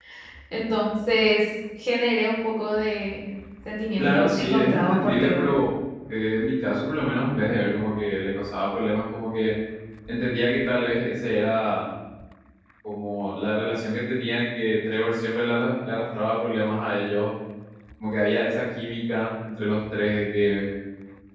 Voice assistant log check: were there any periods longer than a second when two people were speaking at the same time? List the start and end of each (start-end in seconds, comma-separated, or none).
4.0-5.5